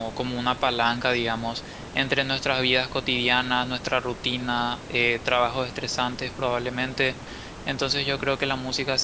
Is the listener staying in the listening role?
Yes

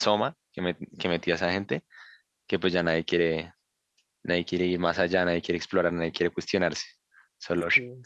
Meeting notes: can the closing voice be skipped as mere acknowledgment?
Yes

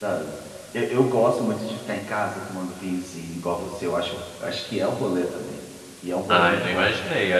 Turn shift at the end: Yes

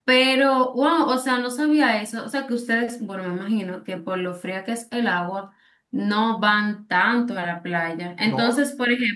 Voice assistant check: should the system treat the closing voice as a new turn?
No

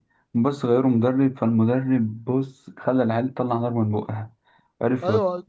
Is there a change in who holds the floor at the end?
Yes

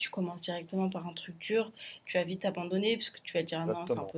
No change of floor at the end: No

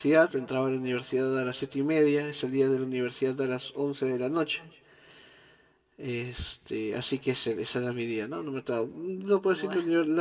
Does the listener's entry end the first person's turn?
No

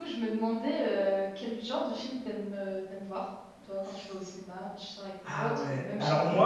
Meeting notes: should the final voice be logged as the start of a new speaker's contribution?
Yes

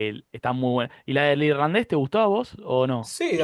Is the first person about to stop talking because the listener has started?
Yes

